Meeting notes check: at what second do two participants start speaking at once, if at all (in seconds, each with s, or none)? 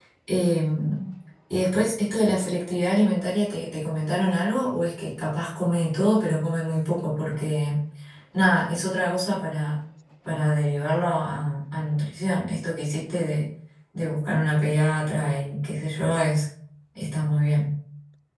none